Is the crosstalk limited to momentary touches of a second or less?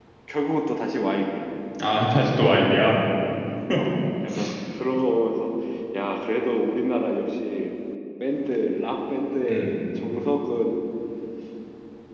Yes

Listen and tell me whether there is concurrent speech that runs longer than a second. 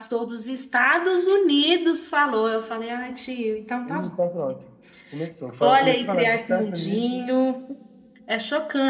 Yes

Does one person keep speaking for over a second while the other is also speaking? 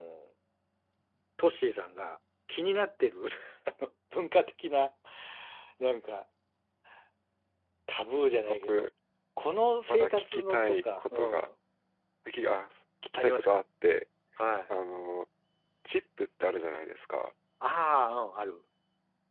Yes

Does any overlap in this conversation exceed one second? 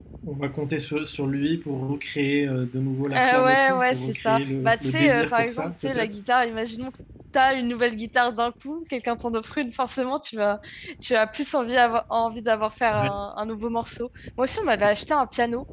Yes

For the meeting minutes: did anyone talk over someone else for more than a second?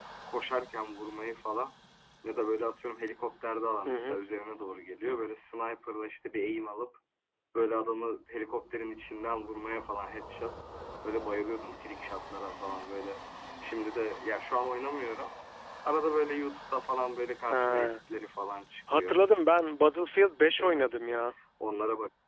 No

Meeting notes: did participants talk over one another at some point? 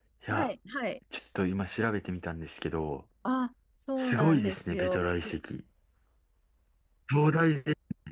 Yes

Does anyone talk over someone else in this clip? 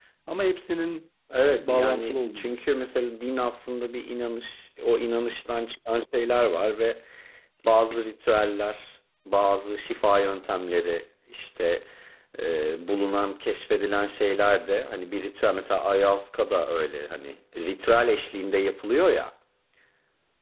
Yes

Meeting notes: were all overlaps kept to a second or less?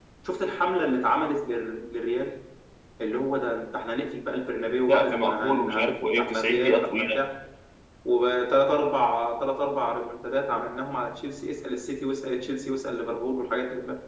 No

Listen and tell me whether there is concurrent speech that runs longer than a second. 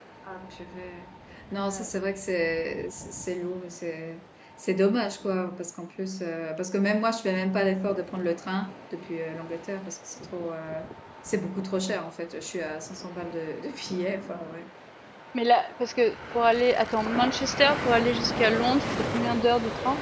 No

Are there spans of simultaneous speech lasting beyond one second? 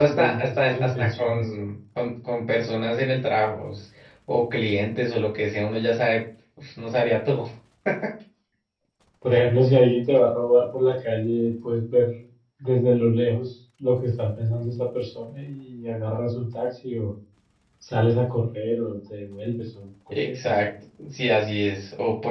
Yes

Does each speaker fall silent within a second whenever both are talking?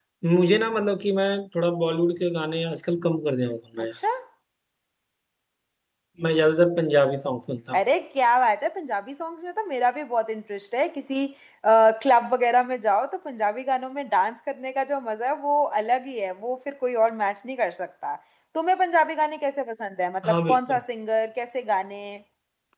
Yes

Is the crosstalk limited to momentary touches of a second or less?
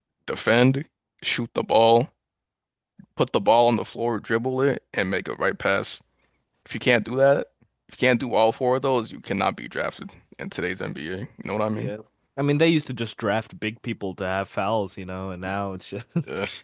Yes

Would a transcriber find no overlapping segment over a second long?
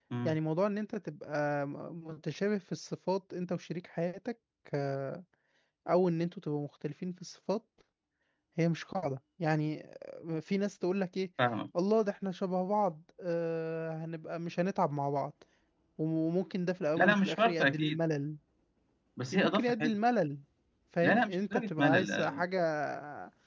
No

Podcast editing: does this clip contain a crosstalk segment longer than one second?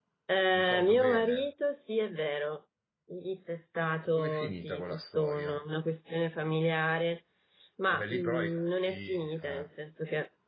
Yes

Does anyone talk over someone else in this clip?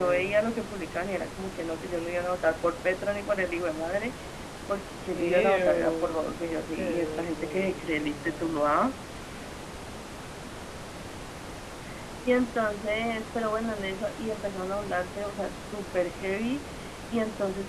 Yes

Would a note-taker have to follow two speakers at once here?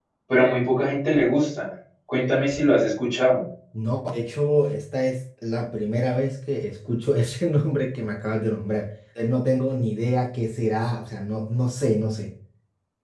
No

